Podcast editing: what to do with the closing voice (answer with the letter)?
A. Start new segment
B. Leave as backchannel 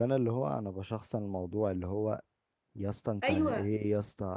B